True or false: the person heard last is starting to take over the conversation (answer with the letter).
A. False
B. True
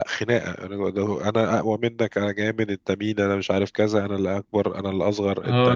B